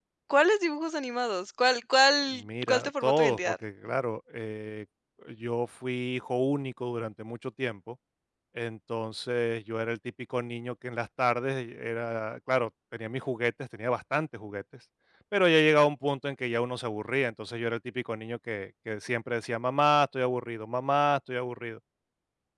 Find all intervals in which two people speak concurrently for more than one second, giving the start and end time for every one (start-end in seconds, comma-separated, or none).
2.3-3.5